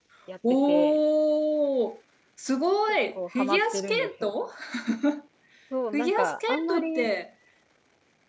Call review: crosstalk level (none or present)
present